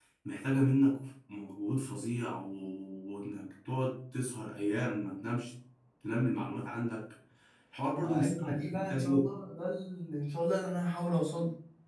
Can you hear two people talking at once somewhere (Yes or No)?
Yes